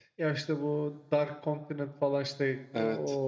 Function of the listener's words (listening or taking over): listening